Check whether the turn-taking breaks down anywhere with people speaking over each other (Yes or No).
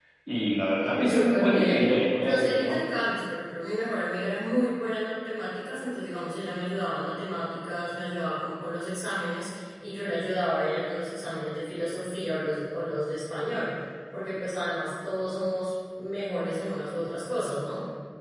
Yes